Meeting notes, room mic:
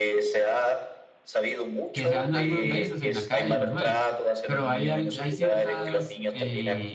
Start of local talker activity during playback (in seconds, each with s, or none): 1.9 s